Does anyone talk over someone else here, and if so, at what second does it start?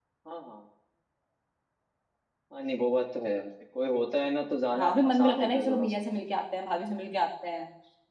4.7 s

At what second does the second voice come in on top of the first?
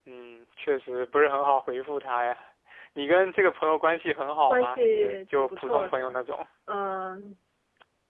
4.5 s

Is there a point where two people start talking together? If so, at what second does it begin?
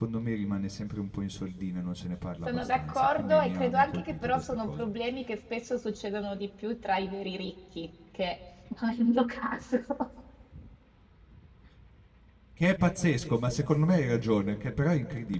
2.4 s

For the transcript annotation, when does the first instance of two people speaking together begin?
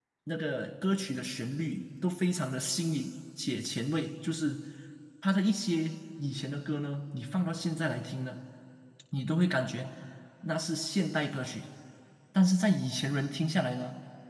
none

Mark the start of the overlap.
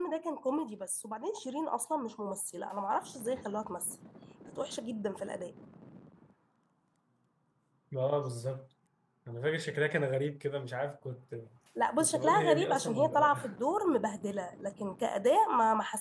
12.0 s

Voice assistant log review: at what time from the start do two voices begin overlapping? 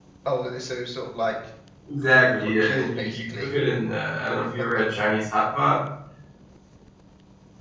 2.1 s

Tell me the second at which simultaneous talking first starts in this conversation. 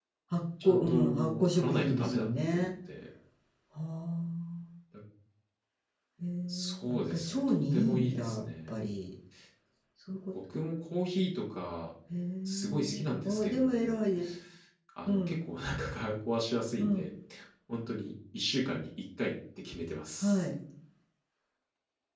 0.6 s

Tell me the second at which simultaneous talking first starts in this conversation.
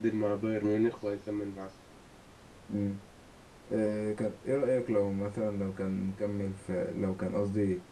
none

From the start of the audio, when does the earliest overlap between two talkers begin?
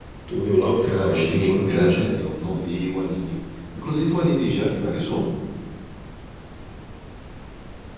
0.8 s

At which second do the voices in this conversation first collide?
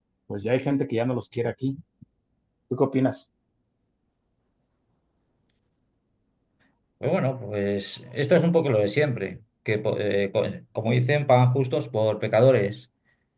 none

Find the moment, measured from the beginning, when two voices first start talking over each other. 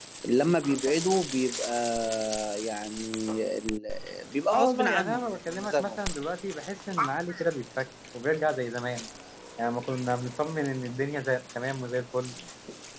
4.5 s

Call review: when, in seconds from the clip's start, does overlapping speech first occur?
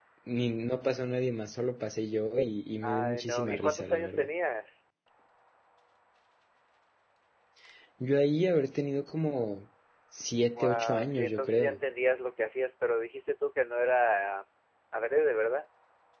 2.8 s

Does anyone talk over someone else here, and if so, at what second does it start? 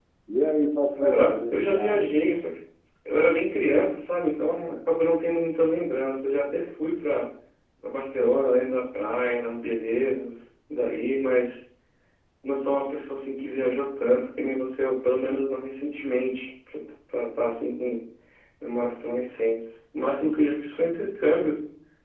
1.0 s

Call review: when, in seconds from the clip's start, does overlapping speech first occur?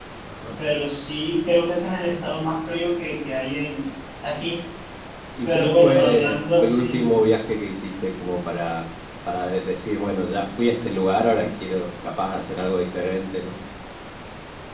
5.4 s

